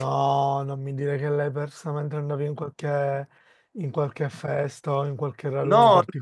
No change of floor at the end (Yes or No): No